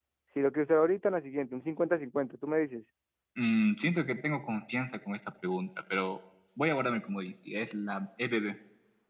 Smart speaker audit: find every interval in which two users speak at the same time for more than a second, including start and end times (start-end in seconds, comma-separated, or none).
none